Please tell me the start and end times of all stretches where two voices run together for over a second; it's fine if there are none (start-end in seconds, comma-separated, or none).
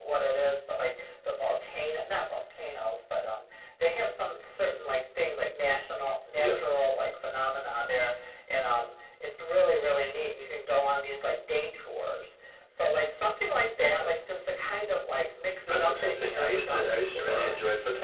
15.7-17.6